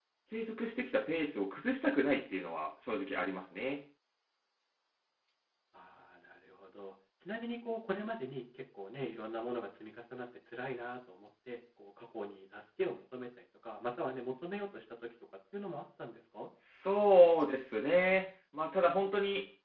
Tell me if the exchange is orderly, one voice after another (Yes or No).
Yes